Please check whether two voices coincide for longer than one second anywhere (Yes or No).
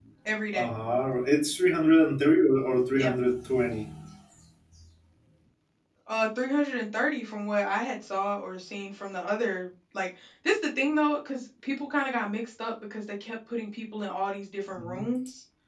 No